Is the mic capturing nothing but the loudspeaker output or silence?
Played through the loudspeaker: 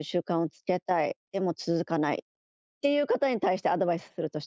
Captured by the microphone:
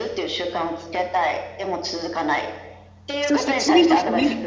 No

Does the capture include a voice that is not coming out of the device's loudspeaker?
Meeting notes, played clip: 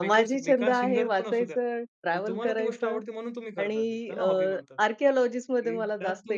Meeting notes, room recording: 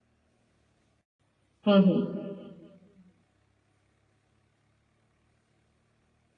Yes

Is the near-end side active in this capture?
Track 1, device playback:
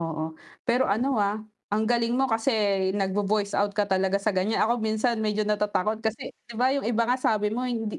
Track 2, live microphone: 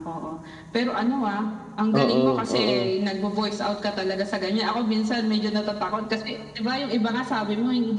Yes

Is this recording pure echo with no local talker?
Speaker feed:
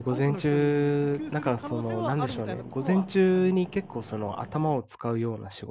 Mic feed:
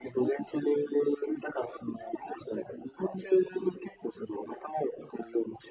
Yes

